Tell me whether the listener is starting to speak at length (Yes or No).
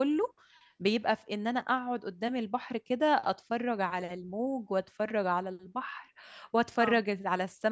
No